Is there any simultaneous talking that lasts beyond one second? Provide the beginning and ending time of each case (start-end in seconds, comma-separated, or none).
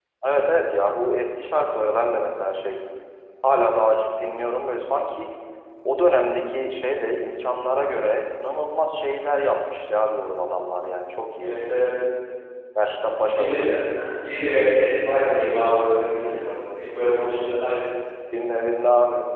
none